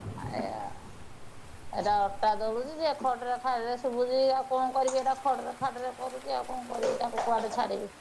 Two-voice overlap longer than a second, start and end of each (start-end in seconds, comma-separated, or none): none